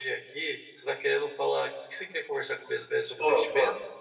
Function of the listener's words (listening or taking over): taking over